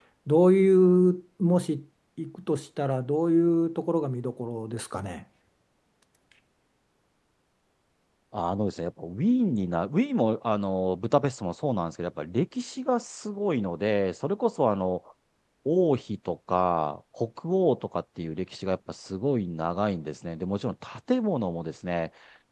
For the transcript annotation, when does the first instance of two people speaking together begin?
none

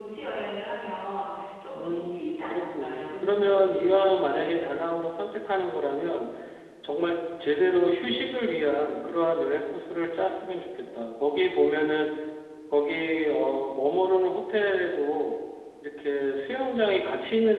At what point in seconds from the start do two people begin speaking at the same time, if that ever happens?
1.7 s

